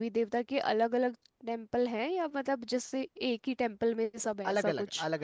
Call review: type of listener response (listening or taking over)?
taking over